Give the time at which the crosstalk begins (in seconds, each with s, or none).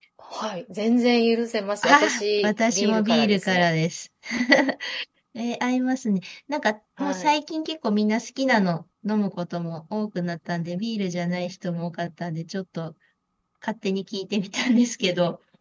1.8 s